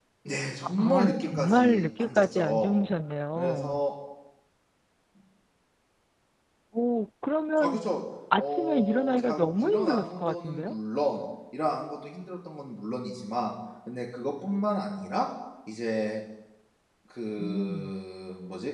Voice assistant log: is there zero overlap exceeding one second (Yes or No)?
No